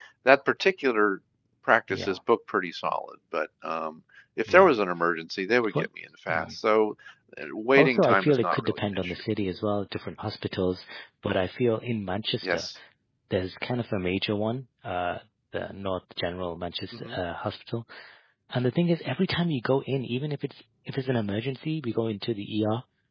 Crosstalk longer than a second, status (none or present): present